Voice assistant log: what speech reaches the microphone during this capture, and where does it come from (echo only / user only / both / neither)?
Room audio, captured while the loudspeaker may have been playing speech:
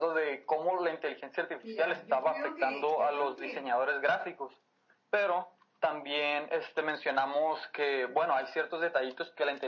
both